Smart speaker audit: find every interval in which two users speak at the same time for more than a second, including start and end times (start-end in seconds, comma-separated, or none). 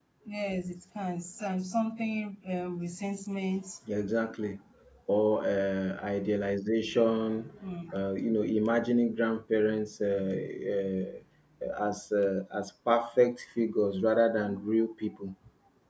none